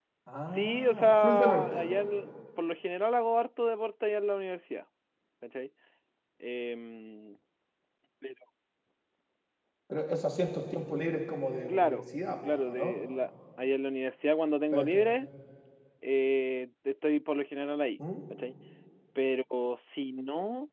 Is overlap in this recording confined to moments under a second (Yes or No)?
No